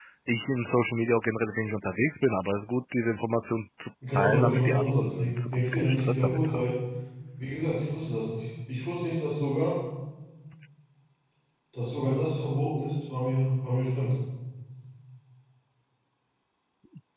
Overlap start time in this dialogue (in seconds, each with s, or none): 4.0 s